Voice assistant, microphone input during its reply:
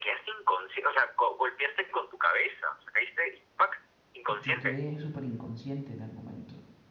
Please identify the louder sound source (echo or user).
echo